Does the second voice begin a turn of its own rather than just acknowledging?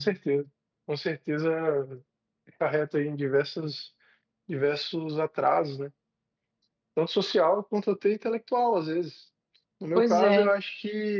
No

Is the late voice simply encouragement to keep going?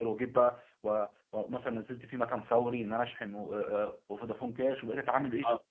No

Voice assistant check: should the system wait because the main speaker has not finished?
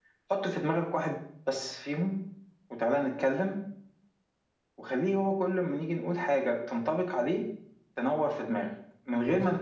Yes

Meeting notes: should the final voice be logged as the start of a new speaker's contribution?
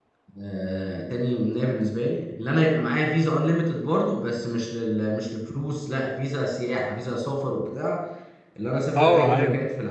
No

